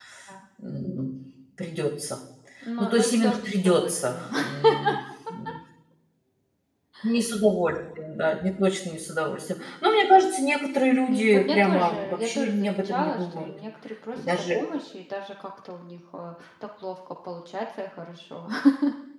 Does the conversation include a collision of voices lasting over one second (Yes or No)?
Yes